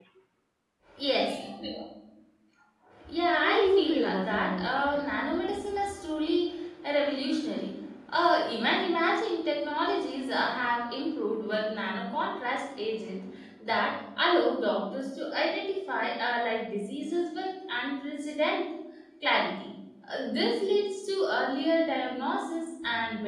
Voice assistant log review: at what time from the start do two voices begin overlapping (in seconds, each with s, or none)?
3.4 s